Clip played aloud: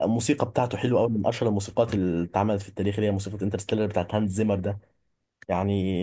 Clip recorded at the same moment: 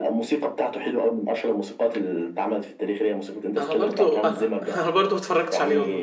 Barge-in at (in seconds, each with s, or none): 3.6 s